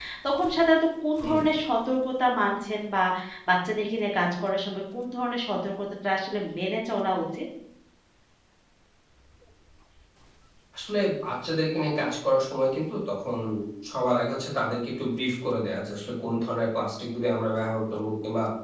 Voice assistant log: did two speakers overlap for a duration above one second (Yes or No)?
No